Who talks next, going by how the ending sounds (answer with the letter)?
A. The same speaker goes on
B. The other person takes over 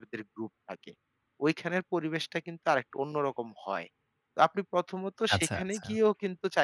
A